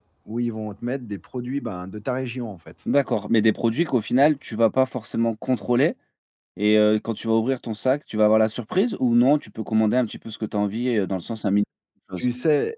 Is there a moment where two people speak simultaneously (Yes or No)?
No